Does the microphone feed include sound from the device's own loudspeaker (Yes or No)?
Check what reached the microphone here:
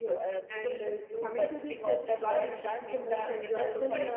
Yes